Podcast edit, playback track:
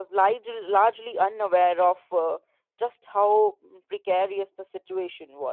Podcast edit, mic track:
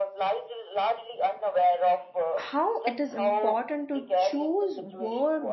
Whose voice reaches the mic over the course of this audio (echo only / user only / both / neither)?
both